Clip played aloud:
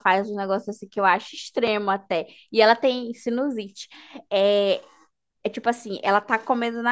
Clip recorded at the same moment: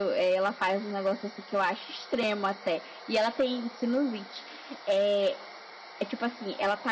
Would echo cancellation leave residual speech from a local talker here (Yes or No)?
No